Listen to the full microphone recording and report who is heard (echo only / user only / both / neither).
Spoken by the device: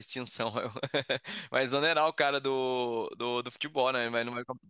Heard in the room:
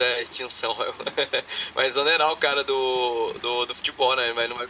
echo only